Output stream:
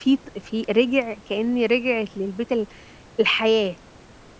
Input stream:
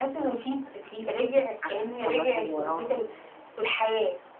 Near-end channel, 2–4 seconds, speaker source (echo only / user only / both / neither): both